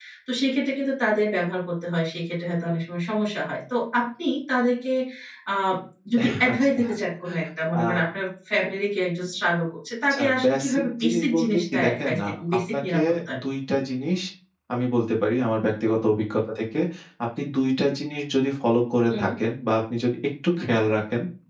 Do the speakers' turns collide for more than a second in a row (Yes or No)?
Yes